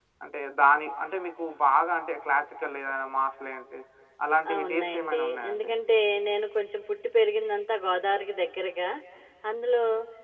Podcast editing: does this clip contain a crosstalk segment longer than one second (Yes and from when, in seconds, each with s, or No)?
Yes, from 4.5 s